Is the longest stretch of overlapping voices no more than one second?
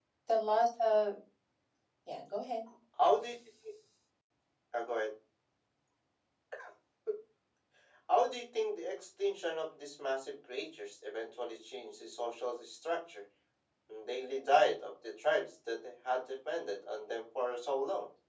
Yes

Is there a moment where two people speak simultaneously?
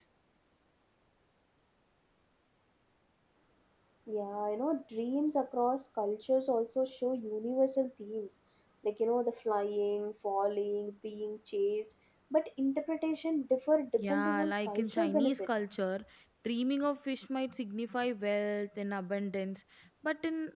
Yes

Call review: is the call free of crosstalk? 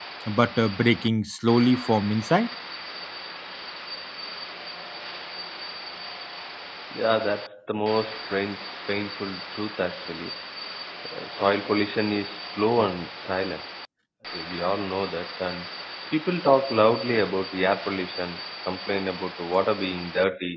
Yes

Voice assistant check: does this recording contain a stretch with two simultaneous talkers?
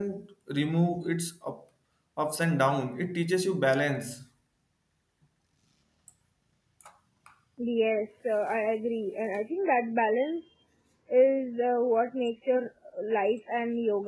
No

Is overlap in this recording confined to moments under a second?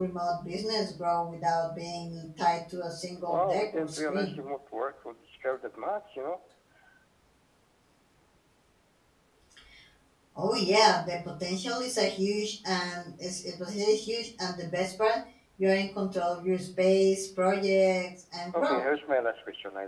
No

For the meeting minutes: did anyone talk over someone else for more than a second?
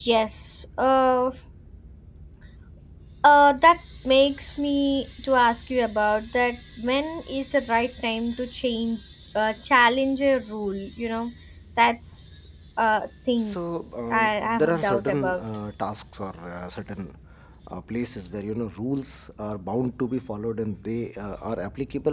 Yes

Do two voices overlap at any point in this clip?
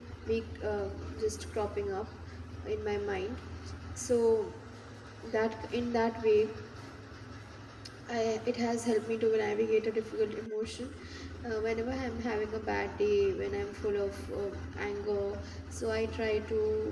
No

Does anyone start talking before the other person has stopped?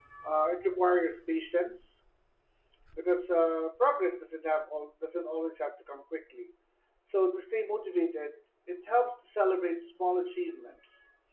No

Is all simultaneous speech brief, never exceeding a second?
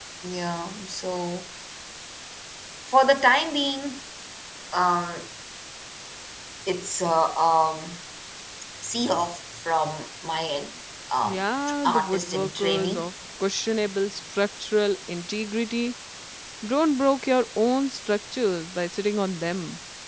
No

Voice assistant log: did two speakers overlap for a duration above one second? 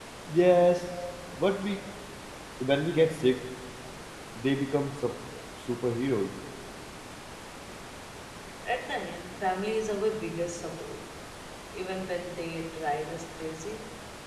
No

